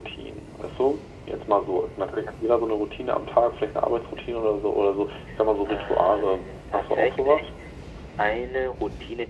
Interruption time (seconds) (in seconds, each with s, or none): 5.7 s